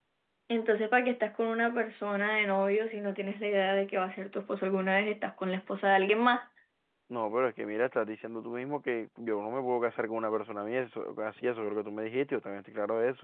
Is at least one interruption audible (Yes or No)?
No